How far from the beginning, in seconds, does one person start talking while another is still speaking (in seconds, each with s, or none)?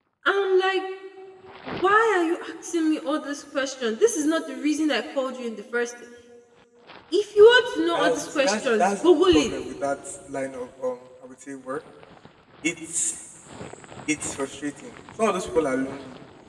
7.9 s